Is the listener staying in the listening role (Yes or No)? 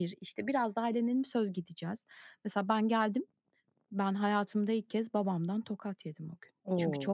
Yes